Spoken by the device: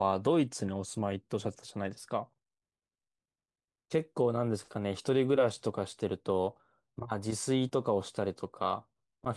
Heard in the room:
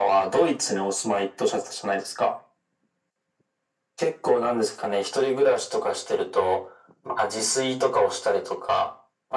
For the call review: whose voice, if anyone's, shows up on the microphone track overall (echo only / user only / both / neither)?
echo only